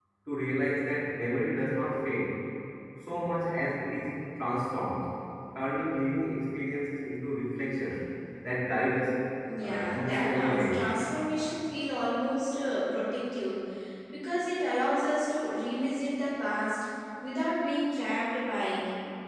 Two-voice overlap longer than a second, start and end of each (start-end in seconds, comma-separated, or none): 9.6-10.9